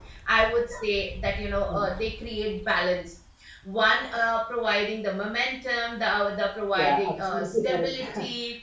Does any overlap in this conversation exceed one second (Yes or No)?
Yes